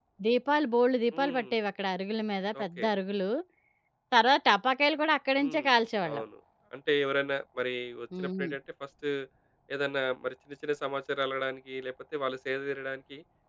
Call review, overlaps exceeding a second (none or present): none